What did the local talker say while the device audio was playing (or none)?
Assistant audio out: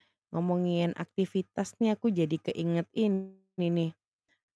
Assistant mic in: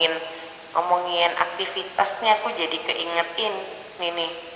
none